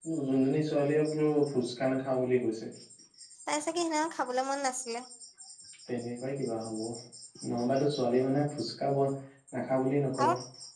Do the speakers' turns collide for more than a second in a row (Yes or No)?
No